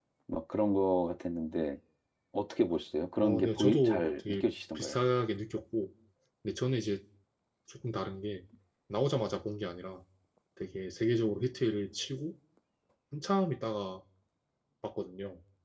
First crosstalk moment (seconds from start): 3.2 s

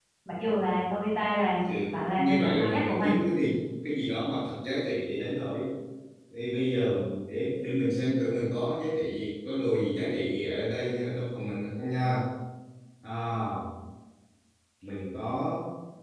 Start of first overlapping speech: 1.6 s

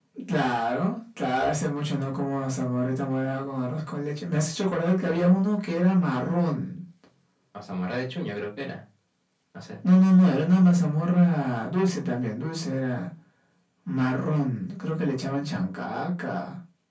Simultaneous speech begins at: none

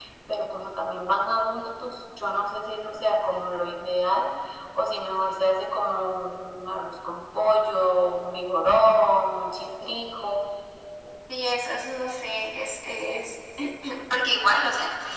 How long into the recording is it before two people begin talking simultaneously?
none

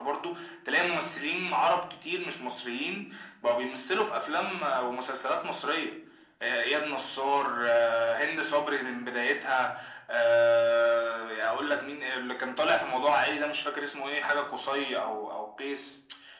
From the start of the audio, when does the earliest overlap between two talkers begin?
none

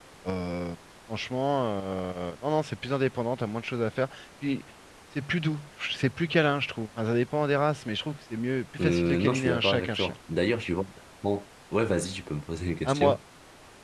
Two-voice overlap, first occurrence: 8.8 s

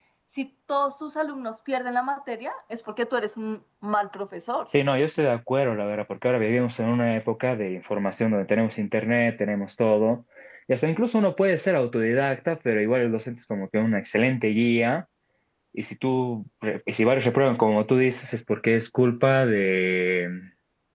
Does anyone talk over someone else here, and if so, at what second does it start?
none

